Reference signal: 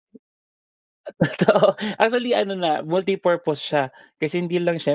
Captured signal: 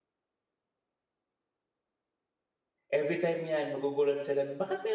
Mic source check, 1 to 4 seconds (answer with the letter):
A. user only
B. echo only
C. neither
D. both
A